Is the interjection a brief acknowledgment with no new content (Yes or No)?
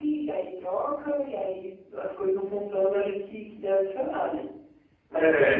Yes